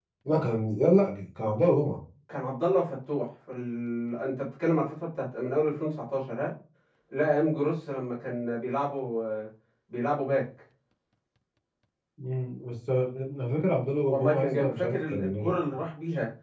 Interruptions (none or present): present